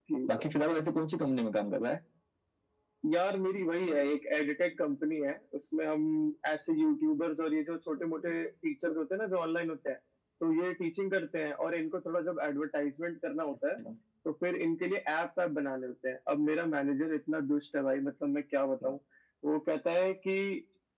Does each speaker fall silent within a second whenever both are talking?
Yes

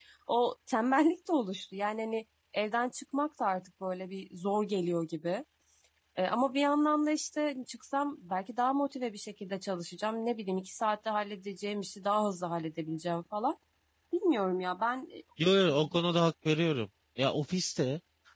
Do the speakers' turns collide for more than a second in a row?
No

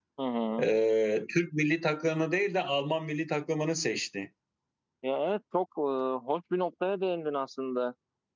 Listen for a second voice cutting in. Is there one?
No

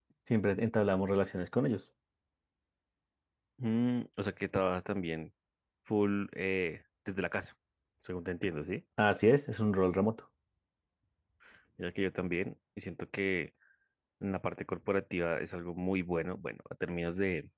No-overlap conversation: Yes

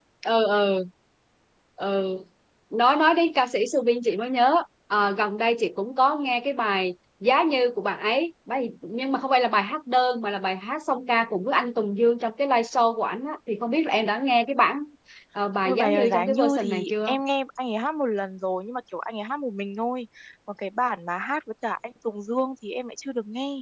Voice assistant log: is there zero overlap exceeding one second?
No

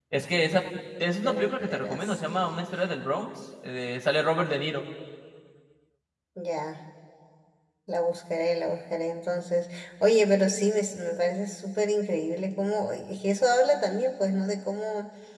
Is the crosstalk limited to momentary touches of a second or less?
No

